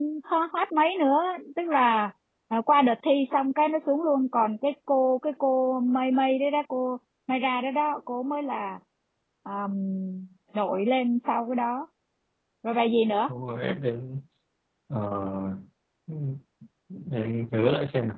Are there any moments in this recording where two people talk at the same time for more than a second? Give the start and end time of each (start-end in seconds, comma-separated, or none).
none